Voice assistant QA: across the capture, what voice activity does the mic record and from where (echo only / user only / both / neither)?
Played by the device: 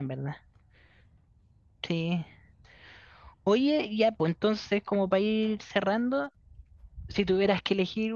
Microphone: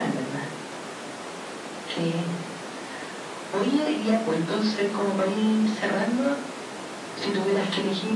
echo only